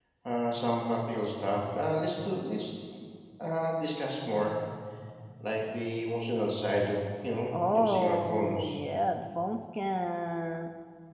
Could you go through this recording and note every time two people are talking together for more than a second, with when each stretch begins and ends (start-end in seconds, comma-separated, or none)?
7.5-8.8